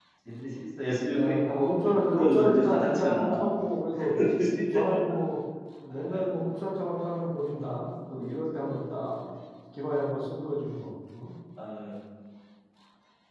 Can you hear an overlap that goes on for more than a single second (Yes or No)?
Yes